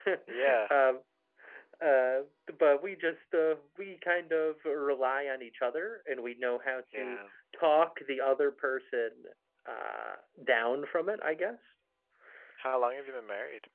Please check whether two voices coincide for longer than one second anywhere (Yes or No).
No